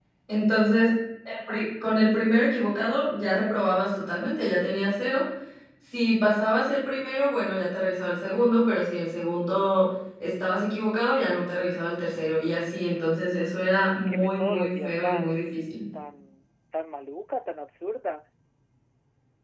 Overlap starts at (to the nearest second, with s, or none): 14 s